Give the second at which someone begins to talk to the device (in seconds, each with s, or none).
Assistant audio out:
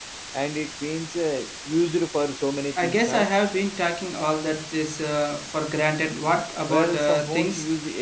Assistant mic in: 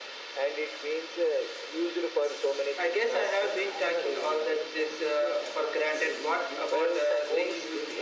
3.4 s